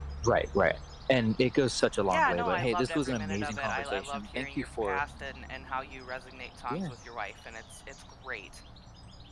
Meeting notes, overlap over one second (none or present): present